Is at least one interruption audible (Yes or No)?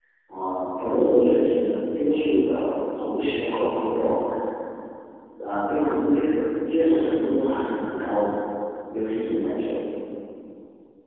No